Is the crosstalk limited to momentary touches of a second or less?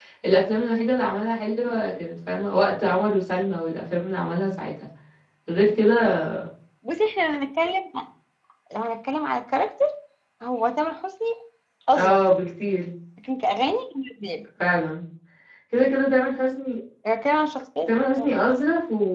Yes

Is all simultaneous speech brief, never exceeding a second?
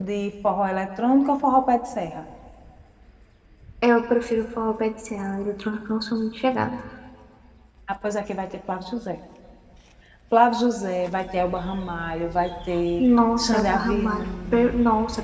No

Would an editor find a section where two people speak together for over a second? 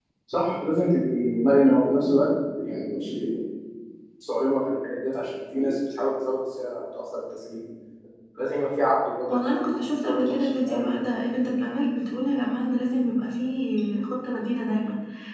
Yes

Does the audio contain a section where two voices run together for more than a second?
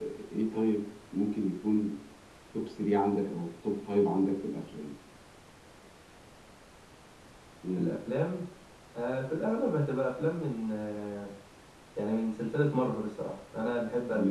No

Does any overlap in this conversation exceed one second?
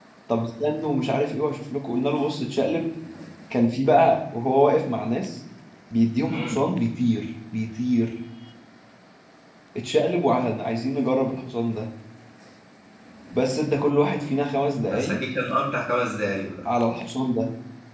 No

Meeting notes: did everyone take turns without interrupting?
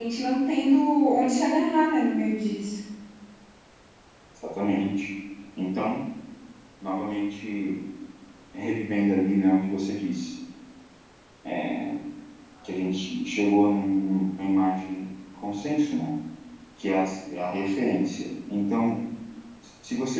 Yes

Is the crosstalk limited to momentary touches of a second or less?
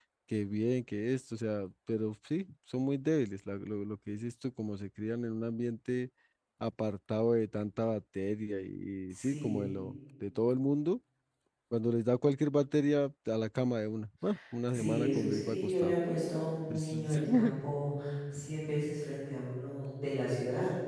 No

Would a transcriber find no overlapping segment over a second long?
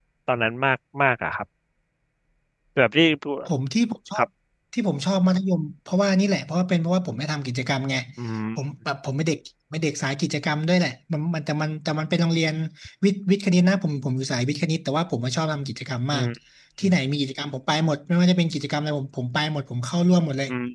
Yes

